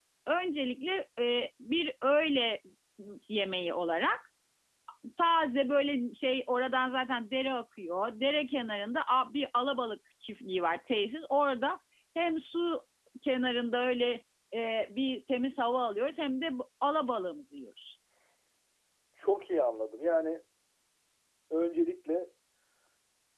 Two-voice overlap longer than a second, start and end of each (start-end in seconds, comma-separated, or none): none